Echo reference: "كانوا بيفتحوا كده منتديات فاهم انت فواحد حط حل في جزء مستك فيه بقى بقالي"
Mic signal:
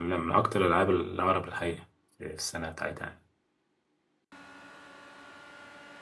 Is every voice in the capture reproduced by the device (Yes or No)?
No